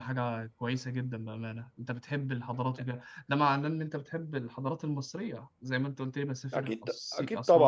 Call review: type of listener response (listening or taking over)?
taking over